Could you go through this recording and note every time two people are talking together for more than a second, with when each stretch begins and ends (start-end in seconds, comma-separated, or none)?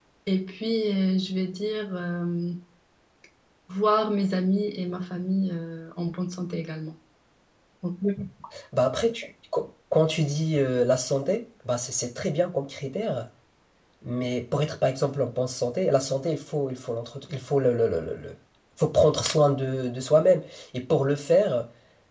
none